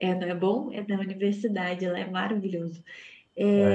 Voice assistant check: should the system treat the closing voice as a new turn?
No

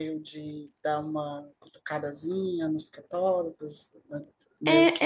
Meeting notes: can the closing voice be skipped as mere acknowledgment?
No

